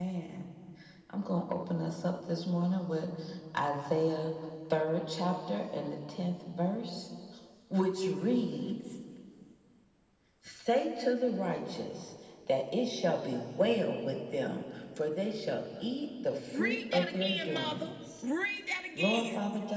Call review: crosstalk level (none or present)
present